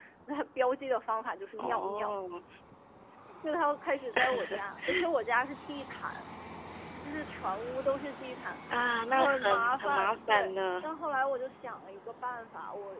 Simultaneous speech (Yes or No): Yes